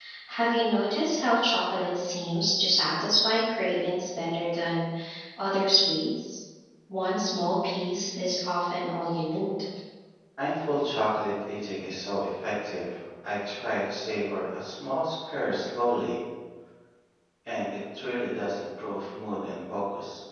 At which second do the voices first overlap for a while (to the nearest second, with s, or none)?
none